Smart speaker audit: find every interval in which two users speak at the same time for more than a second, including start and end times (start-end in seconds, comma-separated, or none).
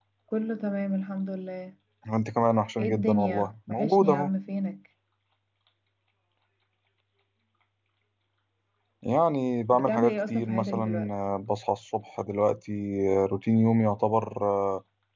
2.8-4.3, 9.7-11.1